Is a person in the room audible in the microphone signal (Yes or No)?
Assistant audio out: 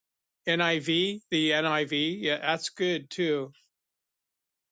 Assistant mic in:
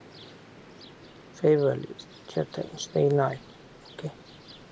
Yes